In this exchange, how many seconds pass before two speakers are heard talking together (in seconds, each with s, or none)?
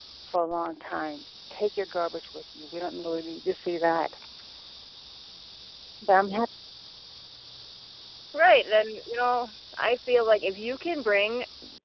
none